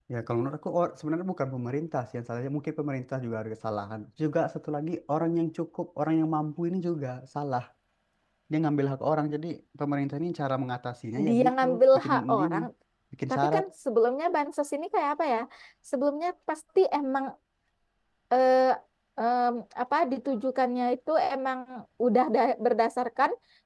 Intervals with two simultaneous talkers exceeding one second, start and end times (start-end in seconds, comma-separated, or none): 11.2-12.6